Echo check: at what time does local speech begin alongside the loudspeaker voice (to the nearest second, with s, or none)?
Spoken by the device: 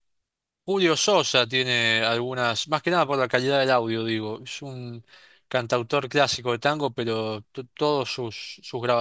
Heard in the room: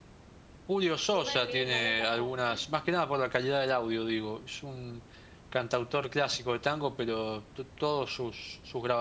1 s